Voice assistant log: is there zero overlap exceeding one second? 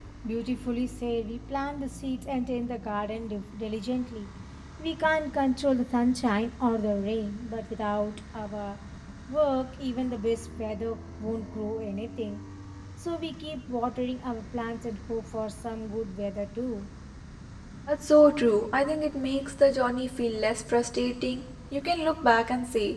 Yes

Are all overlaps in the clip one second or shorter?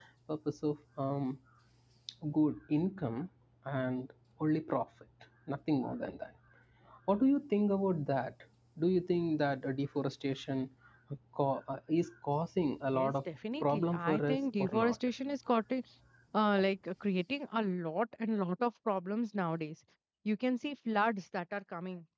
No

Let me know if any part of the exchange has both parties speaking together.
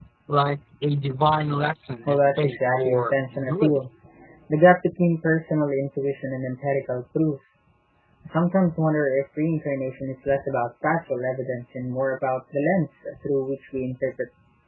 Yes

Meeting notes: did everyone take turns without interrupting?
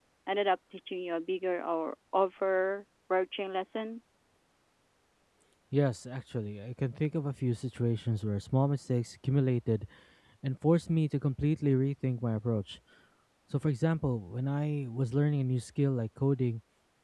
Yes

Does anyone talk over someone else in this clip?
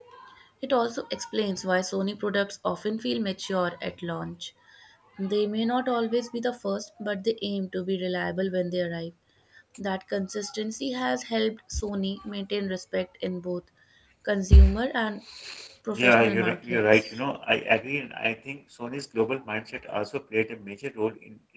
Yes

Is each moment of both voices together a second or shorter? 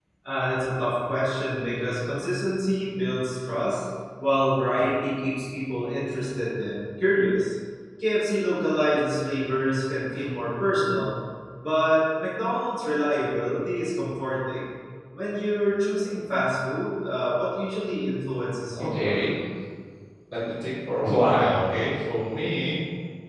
Yes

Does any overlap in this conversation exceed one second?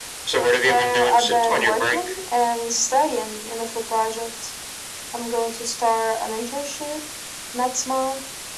Yes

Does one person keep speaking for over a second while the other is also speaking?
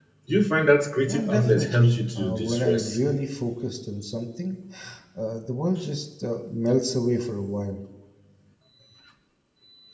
Yes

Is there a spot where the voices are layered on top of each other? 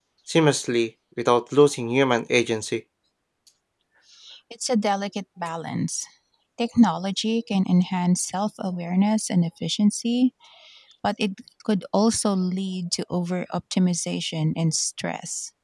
No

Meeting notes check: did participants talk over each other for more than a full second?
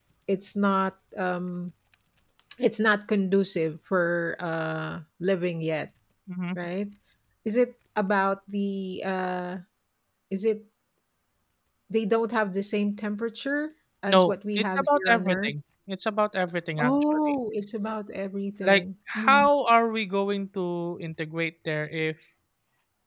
Yes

